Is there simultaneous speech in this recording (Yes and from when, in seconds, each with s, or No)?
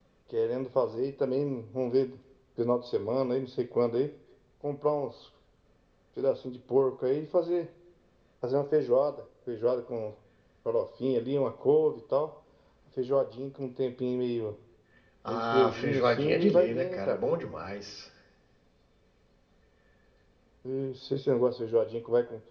Yes, from 15.3 s